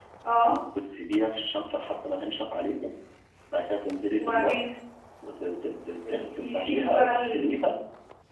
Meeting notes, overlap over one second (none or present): present